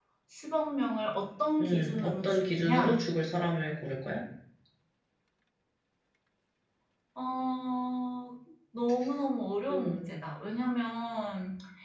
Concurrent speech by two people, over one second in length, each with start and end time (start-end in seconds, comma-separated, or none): 1.6-3.0